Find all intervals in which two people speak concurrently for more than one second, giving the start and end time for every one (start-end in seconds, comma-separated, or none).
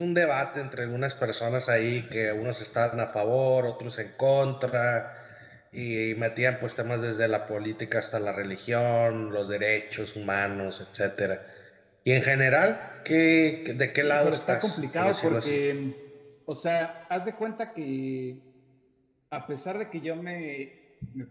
14.0-15.6